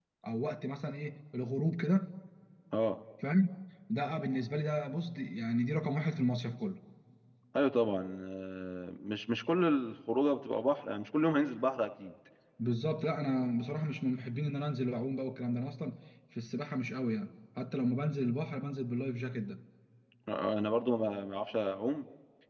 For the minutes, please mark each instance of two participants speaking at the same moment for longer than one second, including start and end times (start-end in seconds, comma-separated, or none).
none